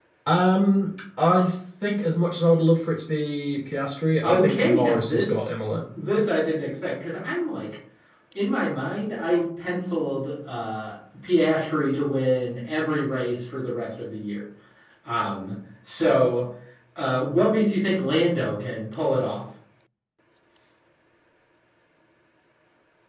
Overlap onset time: 4.2 s

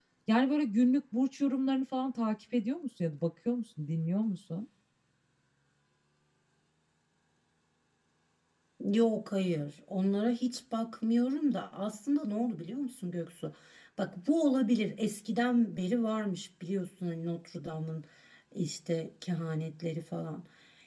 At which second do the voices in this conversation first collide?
none

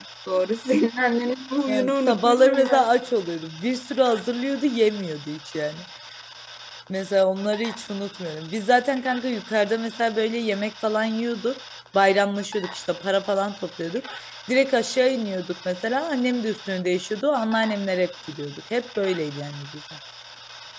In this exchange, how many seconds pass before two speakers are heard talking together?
1.7 s

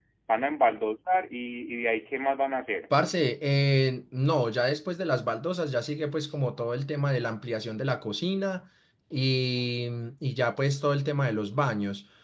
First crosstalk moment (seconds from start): none

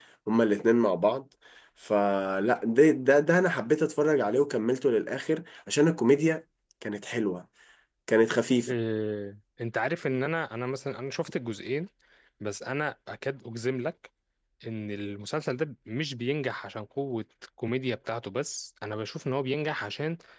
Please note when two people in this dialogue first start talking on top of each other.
none

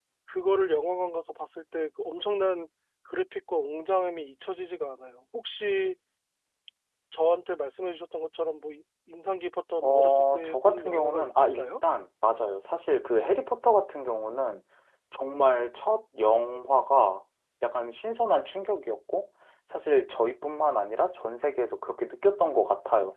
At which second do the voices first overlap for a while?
9.8 s

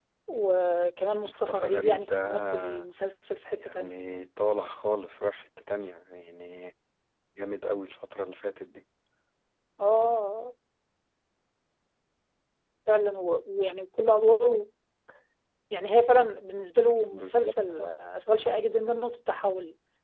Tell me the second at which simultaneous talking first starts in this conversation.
1.2 s

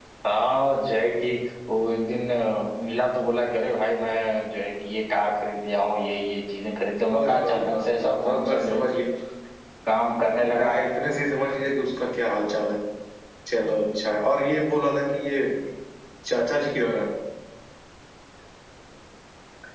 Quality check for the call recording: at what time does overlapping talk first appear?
7.1 s

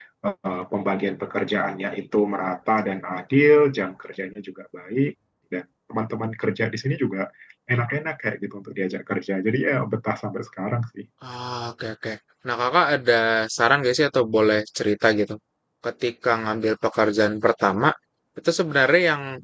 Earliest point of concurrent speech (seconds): none

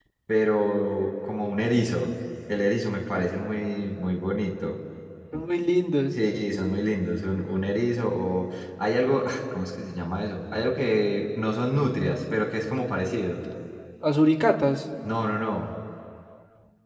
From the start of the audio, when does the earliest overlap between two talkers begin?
none

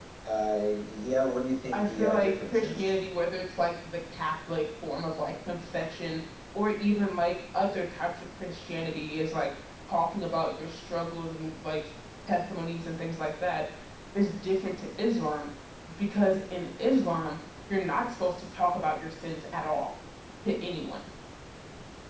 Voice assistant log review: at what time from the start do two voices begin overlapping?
1.7 s

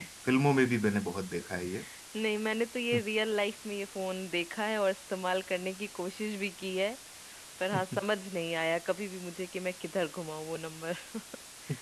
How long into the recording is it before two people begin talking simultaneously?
none

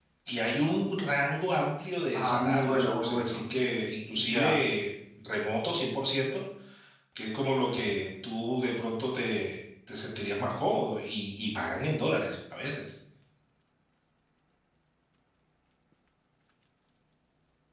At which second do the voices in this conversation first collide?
2.1 s

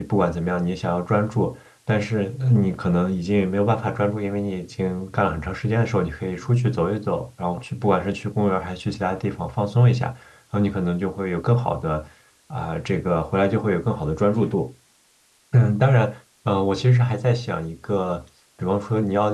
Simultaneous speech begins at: none

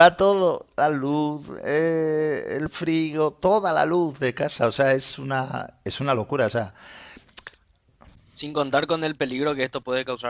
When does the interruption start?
none

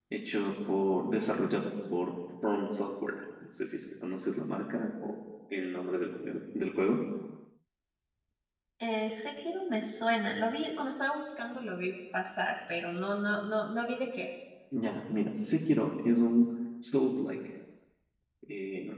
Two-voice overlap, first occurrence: none

